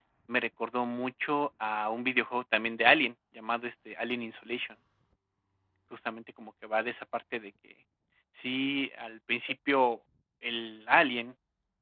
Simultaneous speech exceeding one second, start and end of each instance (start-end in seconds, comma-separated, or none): none